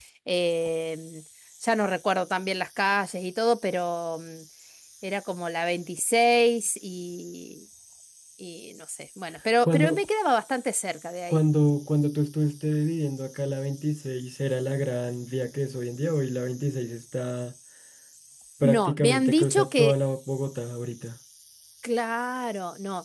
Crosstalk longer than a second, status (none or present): present